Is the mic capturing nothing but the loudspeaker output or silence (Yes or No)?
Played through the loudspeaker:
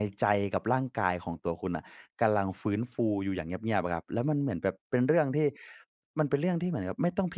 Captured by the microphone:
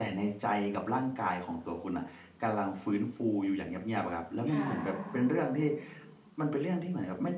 No